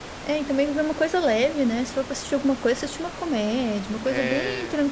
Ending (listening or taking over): listening